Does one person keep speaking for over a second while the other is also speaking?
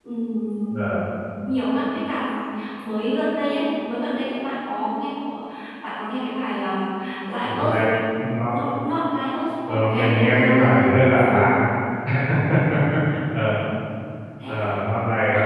Yes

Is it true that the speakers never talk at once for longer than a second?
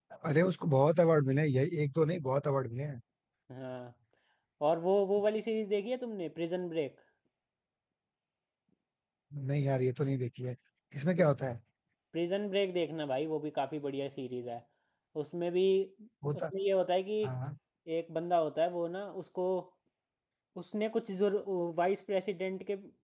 Yes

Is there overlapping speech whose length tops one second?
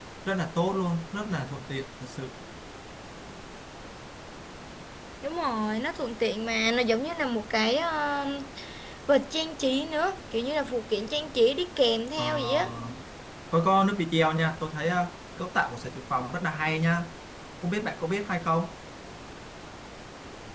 No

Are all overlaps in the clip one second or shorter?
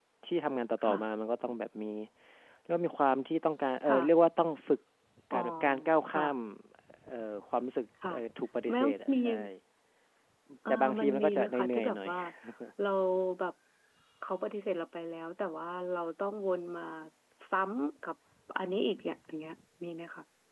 No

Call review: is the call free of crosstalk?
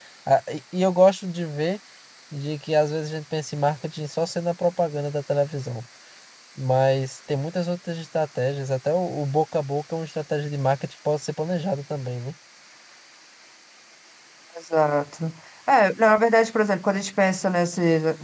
Yes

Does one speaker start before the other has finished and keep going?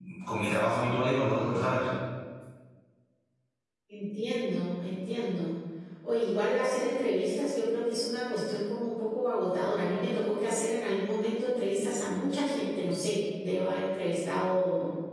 No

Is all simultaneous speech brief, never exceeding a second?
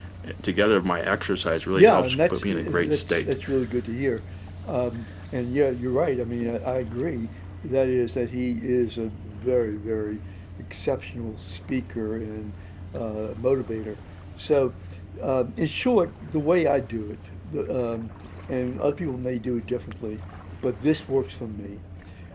No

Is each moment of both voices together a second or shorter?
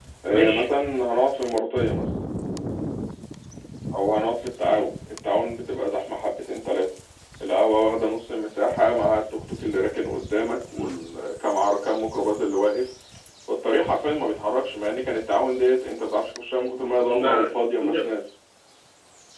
Yes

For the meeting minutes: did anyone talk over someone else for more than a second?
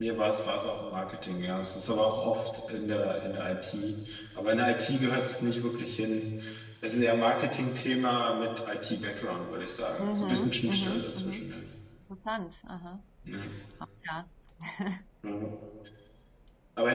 Yes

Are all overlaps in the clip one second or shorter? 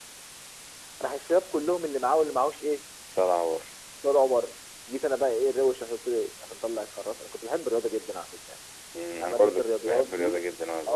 No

